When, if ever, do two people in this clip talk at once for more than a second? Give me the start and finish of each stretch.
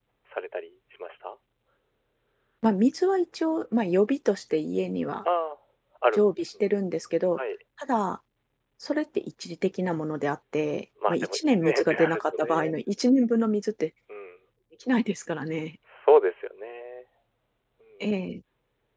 11.1-12.8

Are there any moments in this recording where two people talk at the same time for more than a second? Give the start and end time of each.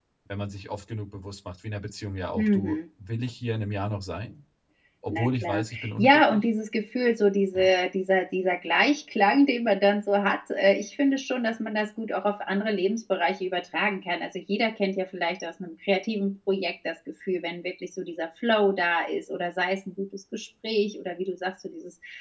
5.1-6.4

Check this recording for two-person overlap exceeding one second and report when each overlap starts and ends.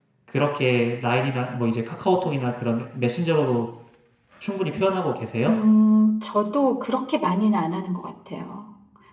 none

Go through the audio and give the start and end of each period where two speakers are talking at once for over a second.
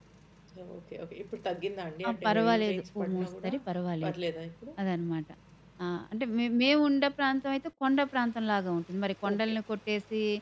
2.1-3.5

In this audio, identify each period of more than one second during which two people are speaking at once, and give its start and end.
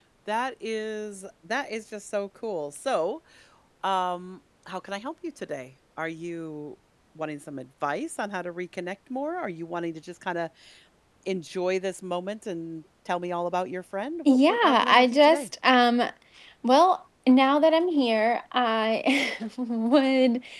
14.2-15.5

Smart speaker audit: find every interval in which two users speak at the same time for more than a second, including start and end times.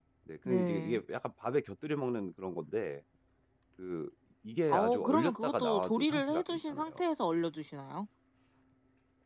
4.7-7.0

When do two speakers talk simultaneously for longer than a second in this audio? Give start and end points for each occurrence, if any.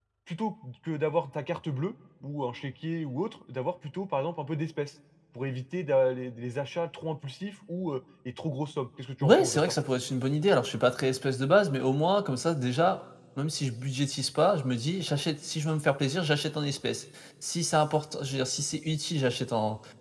none

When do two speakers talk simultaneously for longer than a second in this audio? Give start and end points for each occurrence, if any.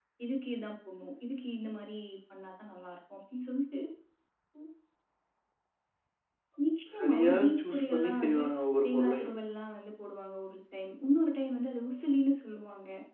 6.9-8.4

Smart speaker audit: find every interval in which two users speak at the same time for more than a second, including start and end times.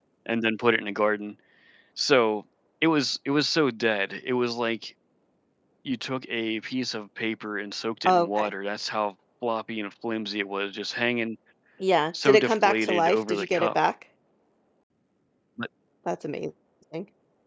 12.2-13.8

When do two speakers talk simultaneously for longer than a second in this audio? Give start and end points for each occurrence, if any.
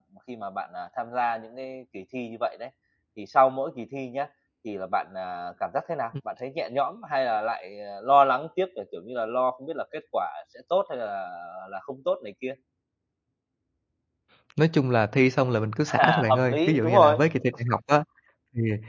16.0-17.2

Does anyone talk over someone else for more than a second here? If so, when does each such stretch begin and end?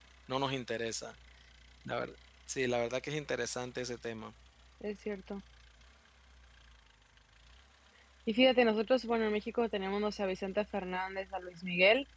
none

